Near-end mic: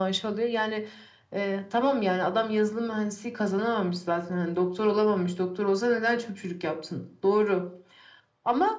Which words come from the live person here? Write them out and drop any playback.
none

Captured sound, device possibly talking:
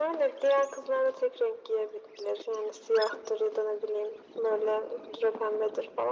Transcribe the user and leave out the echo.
none

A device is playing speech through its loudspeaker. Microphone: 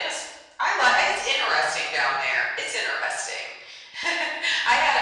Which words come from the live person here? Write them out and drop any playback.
none

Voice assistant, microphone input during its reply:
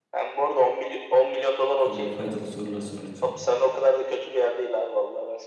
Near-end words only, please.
böyle faydalı sorular sor lütfen.

